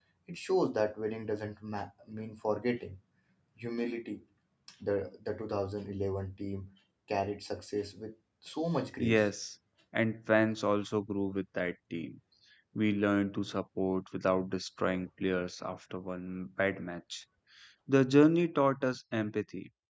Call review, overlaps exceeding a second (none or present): none